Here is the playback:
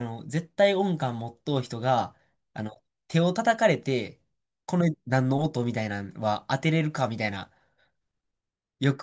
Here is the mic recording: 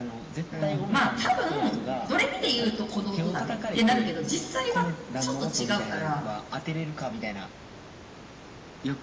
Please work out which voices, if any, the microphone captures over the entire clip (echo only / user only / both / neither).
both